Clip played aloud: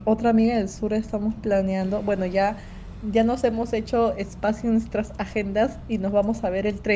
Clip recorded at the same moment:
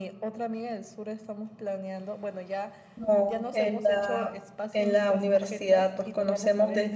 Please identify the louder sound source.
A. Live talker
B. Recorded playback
A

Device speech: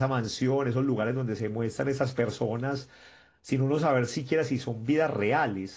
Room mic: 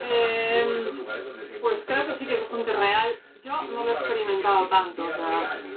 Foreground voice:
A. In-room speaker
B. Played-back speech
A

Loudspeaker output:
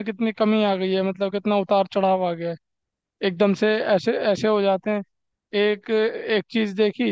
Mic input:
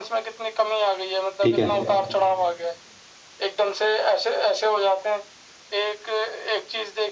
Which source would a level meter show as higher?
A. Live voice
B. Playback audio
A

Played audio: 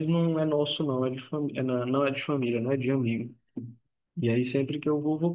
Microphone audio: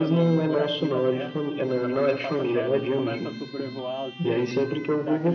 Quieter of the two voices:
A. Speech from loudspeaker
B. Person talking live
B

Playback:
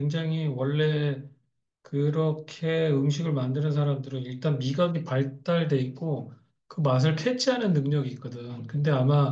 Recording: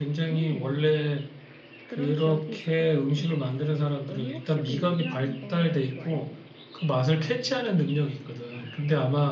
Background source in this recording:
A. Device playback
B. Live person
B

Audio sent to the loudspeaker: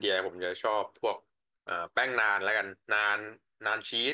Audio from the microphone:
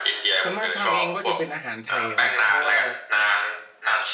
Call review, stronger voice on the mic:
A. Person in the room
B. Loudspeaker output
B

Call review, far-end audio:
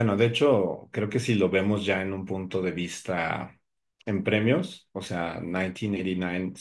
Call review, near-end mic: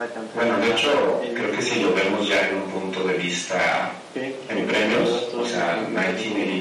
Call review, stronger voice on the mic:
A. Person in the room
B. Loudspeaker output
B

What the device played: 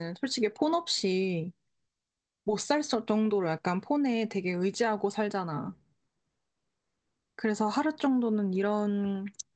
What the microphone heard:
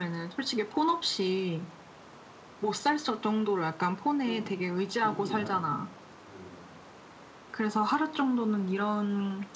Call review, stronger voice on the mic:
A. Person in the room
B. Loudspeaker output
B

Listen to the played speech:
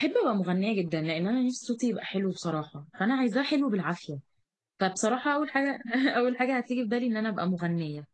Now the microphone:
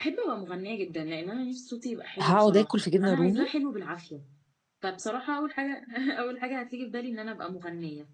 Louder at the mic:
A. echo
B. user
B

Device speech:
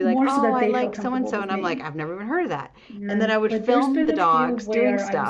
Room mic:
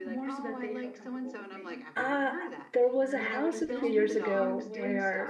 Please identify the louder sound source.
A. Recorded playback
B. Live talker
B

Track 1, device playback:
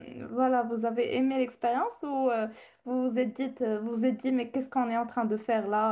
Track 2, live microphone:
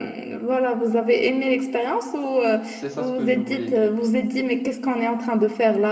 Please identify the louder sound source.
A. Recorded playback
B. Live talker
A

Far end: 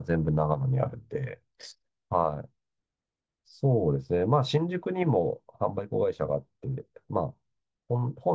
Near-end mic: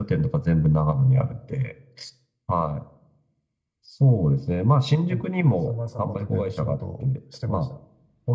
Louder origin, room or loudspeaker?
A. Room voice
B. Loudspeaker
B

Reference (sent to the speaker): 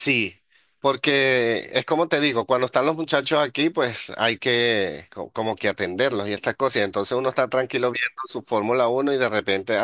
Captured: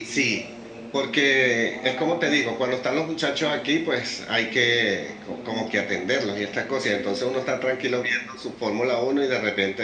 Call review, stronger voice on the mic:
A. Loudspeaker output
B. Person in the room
A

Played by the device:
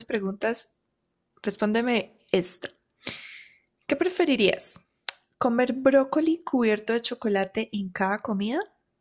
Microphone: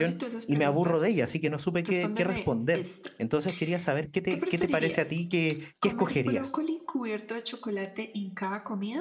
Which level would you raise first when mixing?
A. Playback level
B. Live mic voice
A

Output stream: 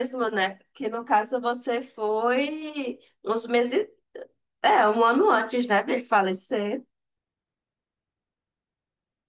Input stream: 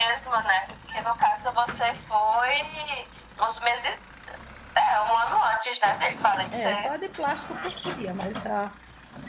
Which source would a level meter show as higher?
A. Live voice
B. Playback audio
B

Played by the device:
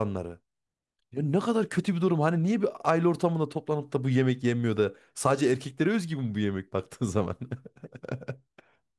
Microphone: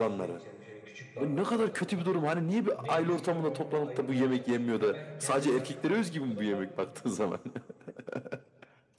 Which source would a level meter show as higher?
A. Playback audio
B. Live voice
A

